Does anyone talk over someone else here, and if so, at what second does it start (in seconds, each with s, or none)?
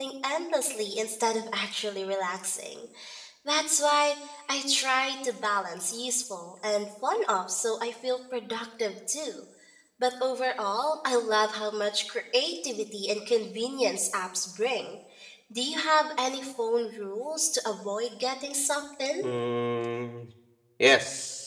none